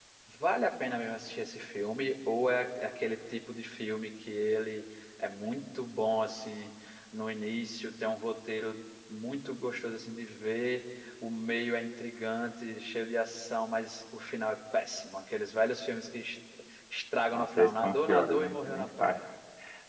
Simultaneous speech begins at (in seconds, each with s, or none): 17.3 s